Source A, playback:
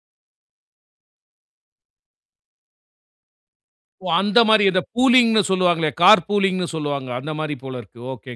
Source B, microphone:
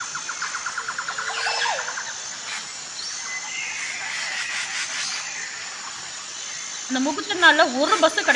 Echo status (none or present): none